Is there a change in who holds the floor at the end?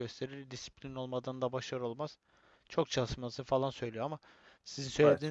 No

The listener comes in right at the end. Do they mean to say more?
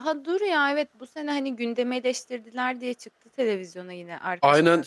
Yes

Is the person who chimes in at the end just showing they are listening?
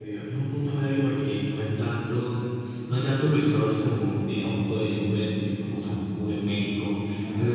Yes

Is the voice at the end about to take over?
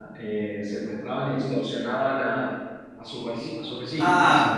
Yes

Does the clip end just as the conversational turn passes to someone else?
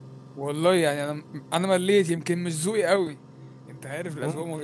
No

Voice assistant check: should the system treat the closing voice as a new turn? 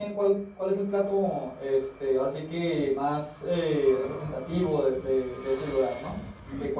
Yes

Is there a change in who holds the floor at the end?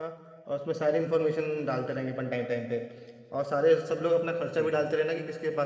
No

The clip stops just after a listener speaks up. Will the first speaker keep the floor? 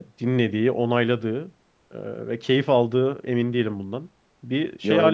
No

